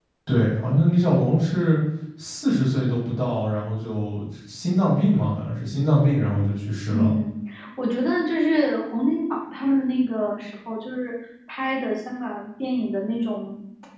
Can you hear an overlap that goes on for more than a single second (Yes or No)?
No